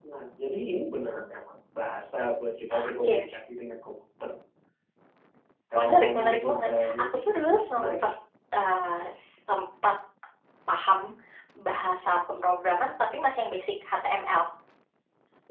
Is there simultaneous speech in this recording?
Yes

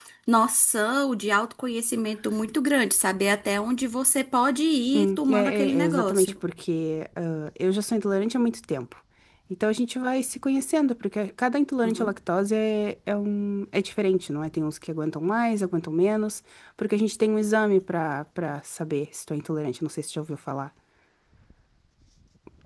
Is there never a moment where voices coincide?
No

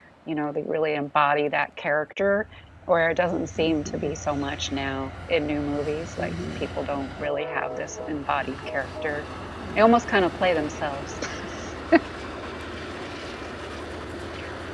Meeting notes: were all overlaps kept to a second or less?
Yes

